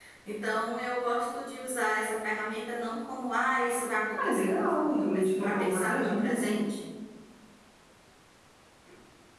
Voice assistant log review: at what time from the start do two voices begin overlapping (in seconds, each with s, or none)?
4.2 s